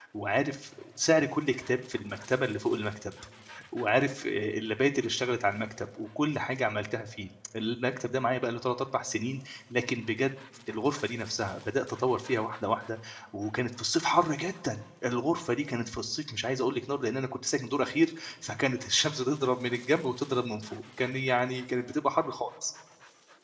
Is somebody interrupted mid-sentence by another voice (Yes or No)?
No